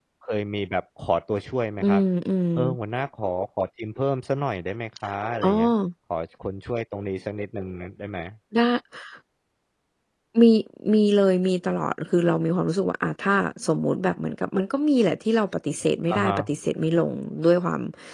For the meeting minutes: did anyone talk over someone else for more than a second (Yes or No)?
No